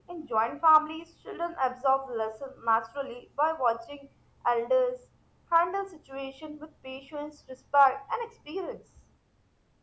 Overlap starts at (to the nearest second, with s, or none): none